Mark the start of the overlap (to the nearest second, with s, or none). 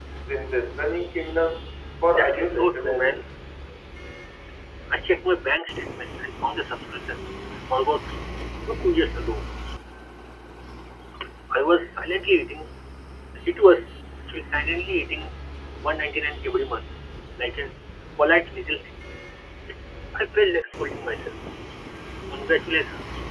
2 s